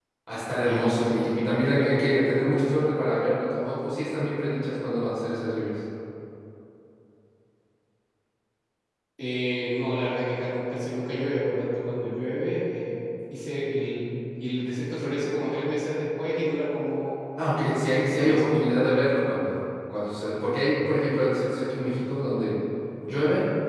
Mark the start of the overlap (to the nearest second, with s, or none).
1 s